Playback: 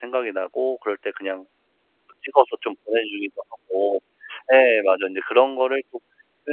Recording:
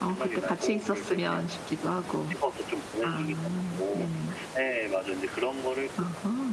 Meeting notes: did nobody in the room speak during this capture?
No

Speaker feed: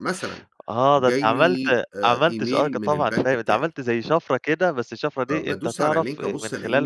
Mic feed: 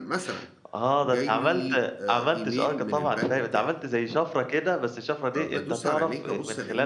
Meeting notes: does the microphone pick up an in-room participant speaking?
No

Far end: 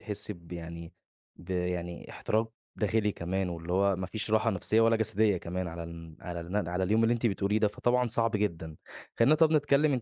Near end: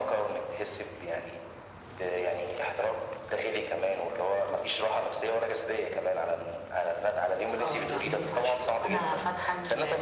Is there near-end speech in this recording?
Yes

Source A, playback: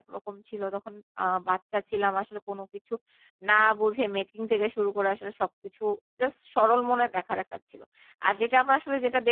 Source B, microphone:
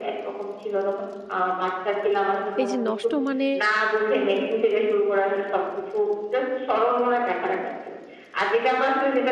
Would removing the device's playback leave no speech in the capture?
No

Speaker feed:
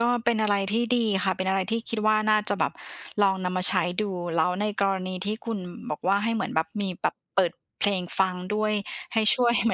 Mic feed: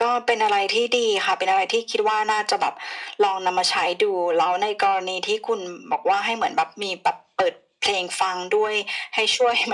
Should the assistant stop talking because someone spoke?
No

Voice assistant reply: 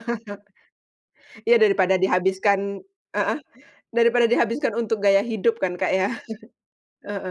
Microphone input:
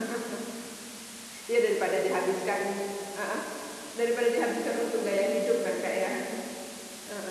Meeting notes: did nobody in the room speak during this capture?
Yes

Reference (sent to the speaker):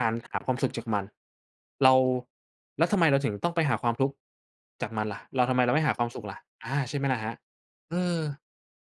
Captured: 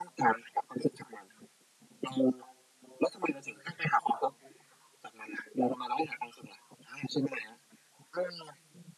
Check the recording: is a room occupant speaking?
No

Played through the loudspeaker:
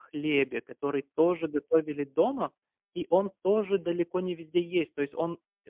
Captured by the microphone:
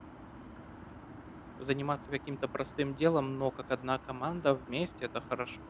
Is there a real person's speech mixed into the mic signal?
Yes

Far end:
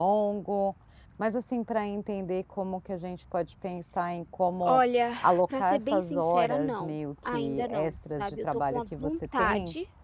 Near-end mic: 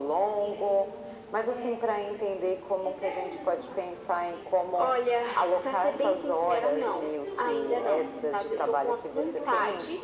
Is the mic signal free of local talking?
No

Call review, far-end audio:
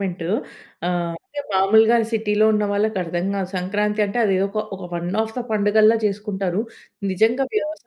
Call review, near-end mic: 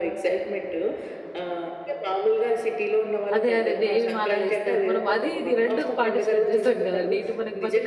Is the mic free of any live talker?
No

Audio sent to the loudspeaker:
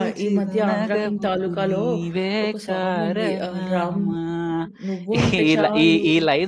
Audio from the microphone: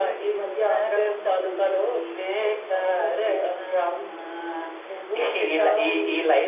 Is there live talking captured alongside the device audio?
No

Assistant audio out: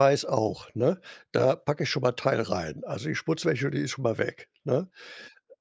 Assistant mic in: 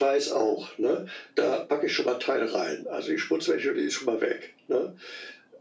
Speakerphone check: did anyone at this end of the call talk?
No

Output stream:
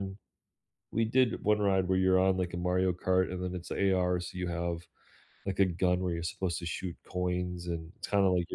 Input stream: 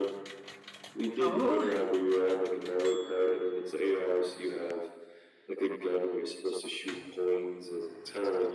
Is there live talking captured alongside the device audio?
Yes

